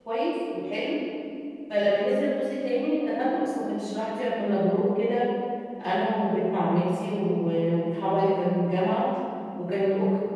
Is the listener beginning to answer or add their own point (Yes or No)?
No